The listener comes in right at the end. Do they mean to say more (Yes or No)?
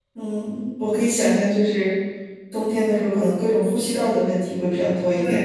Yes